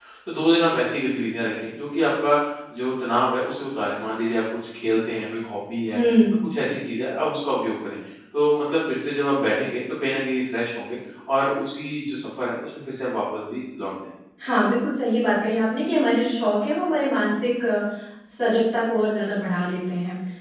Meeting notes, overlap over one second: none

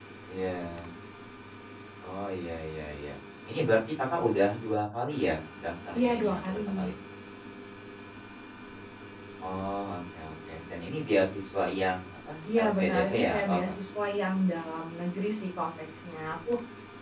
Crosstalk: present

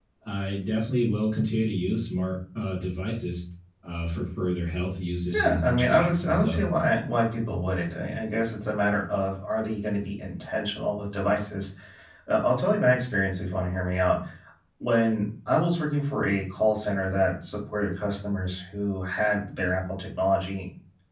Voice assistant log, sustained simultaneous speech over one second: present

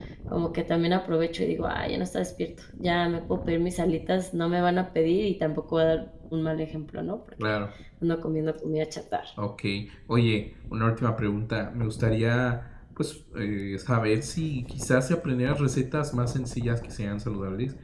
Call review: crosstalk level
none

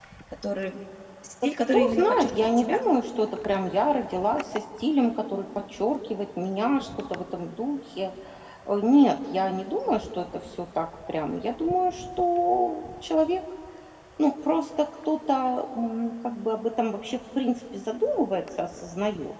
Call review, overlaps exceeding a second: present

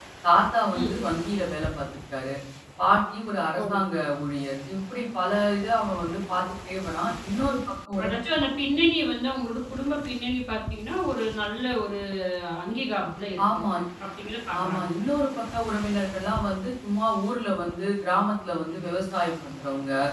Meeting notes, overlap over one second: none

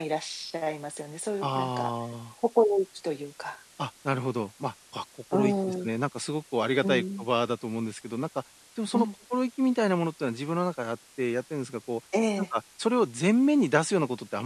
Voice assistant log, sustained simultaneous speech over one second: none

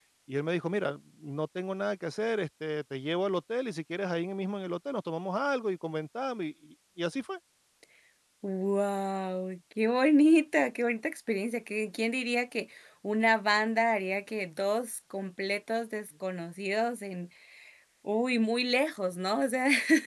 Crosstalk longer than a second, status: none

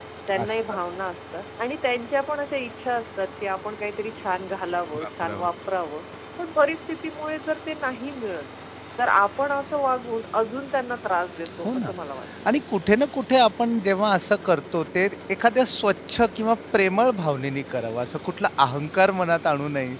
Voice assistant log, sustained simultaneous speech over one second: none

